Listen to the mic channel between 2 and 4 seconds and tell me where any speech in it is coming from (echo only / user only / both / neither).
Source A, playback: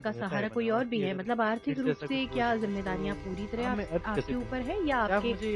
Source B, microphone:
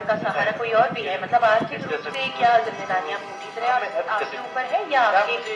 echo only